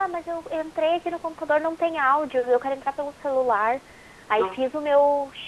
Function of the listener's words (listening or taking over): listening